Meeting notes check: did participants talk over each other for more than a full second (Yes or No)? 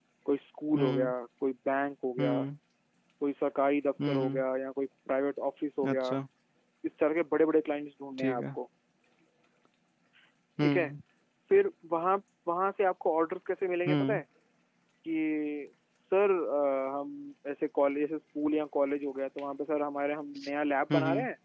No